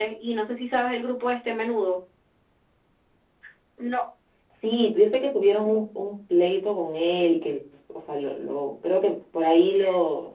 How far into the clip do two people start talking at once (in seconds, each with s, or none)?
none